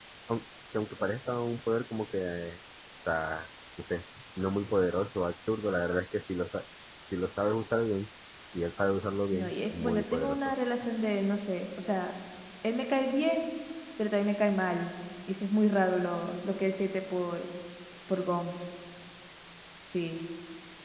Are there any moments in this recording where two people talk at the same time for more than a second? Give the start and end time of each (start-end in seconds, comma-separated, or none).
9.3-10.5